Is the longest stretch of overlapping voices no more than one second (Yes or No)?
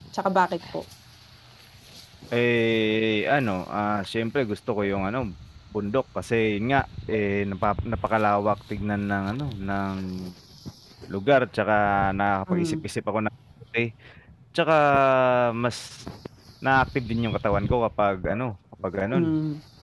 Yes